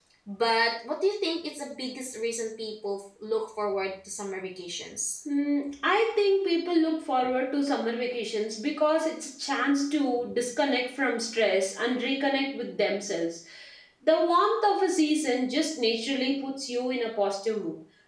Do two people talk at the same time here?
No

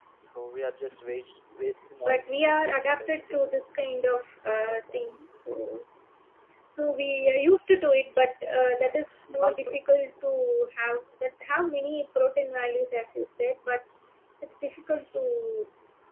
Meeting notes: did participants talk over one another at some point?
Yes, from 2.0 s

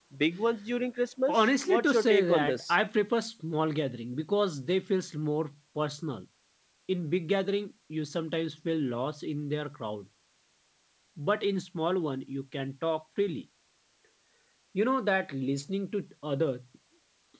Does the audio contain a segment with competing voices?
Yes, from 1.3 s

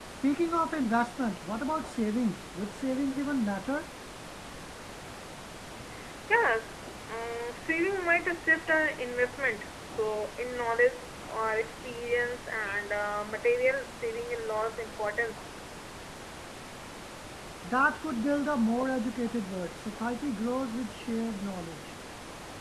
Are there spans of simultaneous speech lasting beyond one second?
No

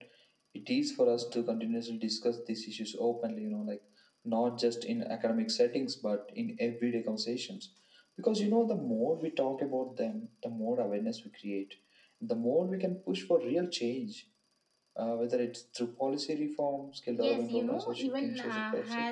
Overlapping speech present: Yes, from 17.1 s

